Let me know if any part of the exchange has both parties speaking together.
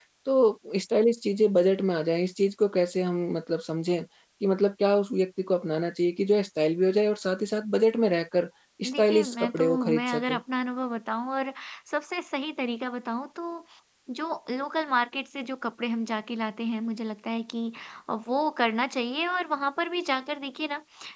Yes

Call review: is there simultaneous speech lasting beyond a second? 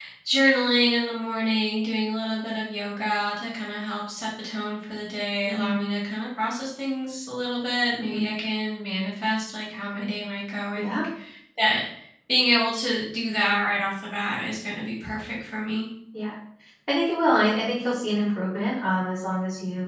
No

